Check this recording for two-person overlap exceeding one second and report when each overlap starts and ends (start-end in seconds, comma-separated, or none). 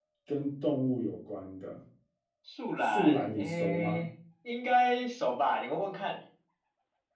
2.8-4.0